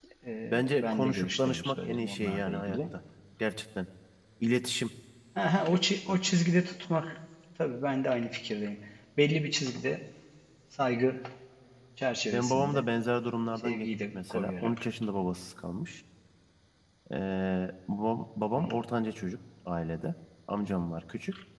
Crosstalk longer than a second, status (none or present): present